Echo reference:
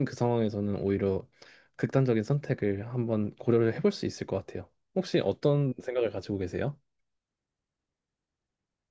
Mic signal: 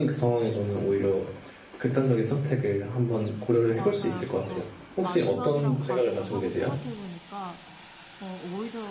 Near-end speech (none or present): present